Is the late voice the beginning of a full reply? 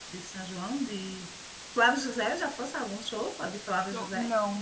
Yes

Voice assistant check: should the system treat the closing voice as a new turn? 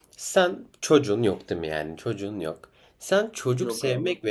No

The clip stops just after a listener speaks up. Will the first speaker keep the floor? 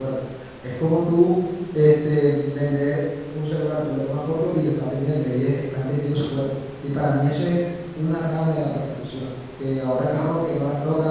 Yes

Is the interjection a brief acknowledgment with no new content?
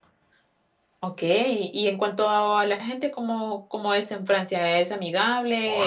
No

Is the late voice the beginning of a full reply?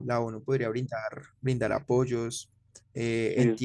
No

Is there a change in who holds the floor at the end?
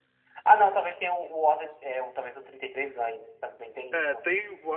Yes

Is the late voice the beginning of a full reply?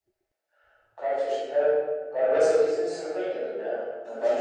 Yes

